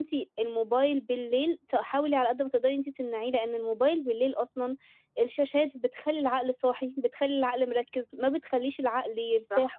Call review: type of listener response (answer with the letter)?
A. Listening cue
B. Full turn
A